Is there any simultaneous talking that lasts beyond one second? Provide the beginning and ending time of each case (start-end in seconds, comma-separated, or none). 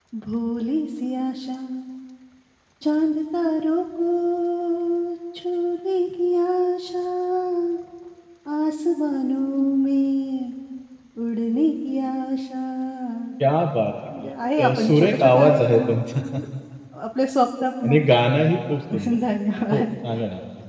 14.7-16.2